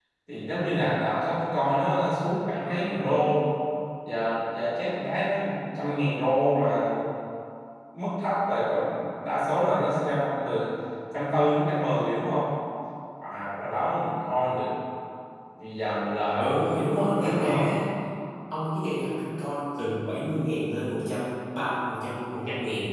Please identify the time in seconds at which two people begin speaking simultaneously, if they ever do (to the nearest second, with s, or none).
16 s